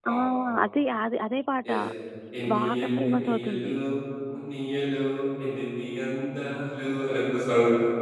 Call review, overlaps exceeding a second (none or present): present